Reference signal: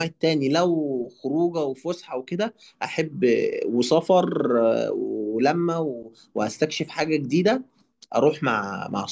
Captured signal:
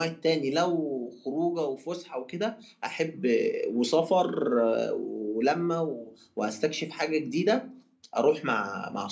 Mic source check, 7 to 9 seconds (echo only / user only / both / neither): echo only